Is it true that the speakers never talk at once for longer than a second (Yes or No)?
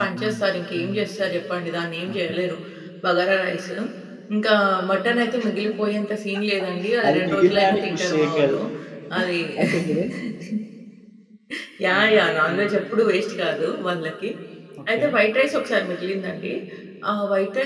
No